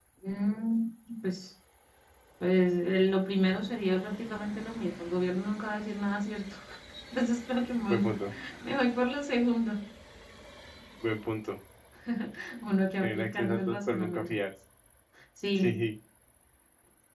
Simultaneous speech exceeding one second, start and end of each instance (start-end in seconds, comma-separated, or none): 13.0-14.4